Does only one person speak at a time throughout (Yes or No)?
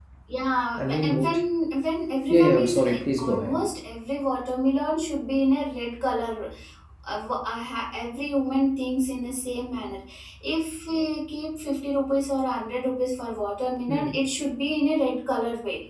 No